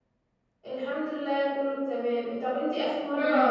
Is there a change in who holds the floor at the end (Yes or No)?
No